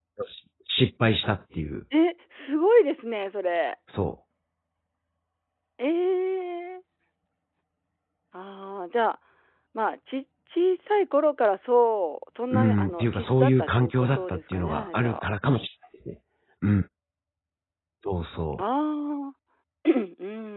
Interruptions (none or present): present